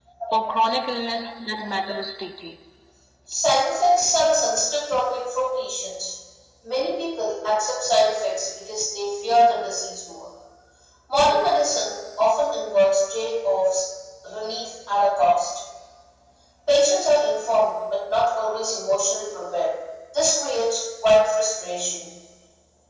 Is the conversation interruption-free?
Yes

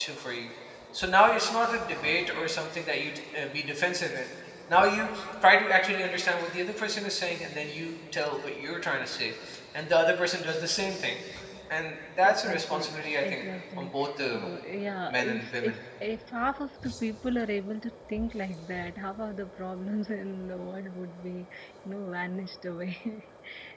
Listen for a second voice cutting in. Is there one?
Yes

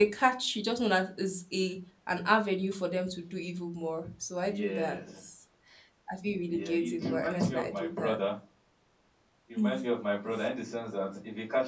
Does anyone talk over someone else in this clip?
Yes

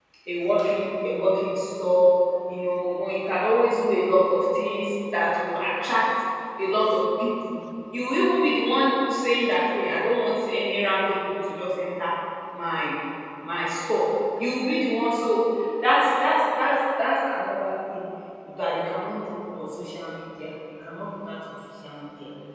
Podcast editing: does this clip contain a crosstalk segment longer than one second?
No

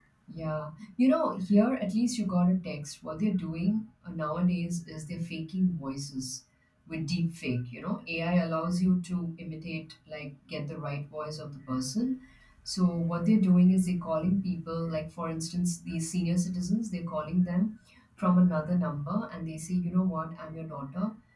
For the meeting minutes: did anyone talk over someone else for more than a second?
No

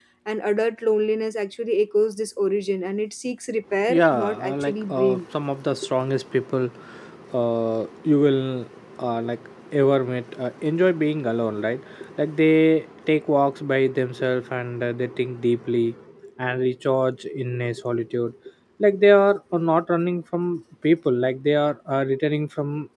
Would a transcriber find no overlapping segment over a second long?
No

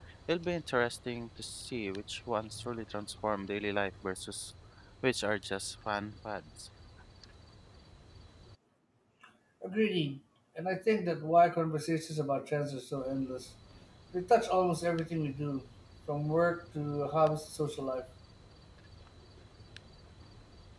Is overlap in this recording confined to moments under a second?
Yes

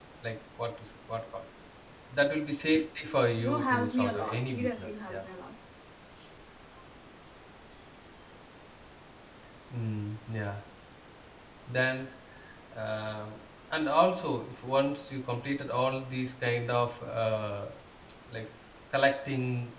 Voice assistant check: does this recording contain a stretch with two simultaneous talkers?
Yes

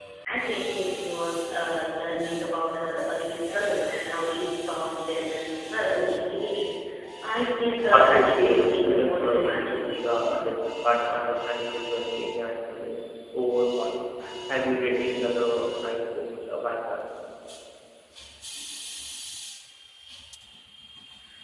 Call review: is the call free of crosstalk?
No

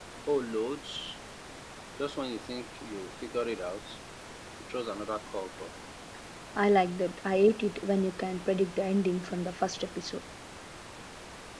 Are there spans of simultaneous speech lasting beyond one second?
No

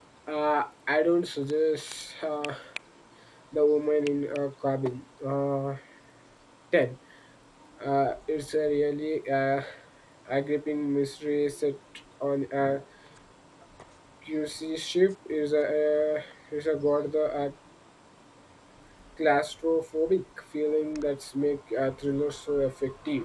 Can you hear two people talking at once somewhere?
No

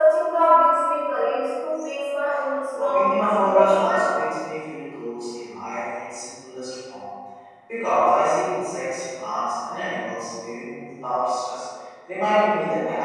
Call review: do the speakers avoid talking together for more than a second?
No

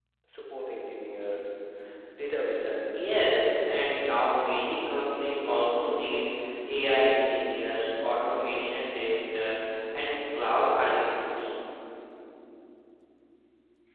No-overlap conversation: No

